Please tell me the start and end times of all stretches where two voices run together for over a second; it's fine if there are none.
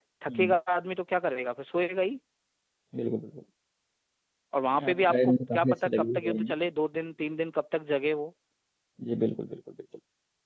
4.9-6.5

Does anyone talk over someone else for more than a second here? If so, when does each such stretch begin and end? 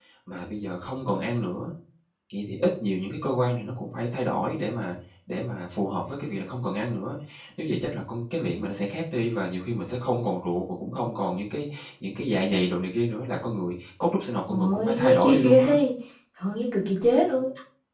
14.5-15.7

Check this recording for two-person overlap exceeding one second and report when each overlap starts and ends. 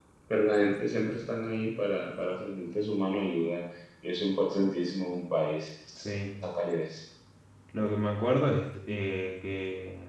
none

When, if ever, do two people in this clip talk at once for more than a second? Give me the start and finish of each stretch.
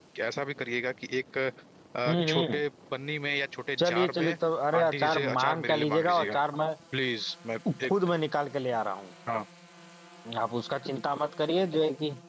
4.8-6.4

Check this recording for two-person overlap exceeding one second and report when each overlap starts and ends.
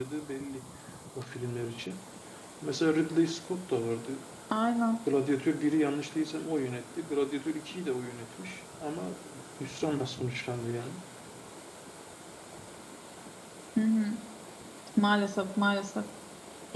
none

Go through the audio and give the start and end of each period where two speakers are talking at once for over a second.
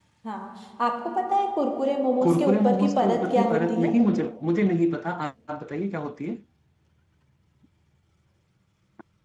2.2-3.9

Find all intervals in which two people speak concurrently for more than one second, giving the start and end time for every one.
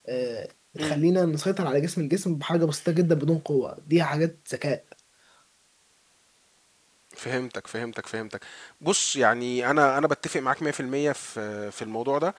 none

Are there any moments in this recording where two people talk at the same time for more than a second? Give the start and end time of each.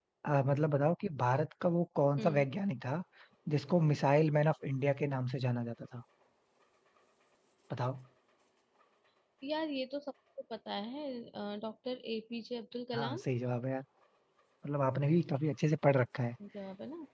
none

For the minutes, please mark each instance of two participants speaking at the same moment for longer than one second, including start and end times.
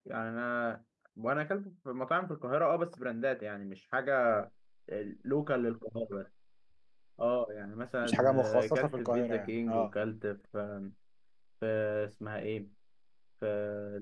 8.0-9.9

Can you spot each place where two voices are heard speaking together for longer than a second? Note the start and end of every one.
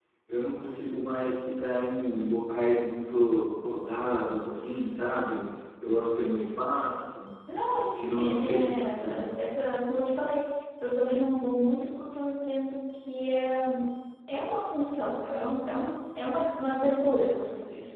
8.0-9.3

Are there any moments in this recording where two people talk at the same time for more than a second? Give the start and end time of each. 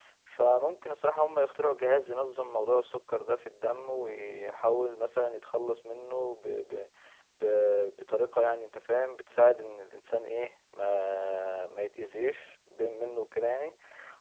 none

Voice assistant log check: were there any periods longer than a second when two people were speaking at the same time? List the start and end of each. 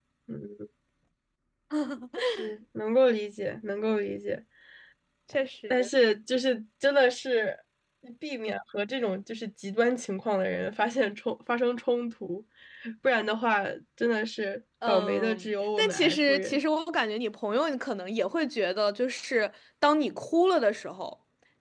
14.9-16.6

